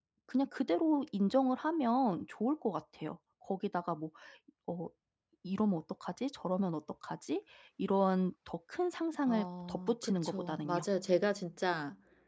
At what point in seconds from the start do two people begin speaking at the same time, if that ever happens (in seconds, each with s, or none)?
9.2 s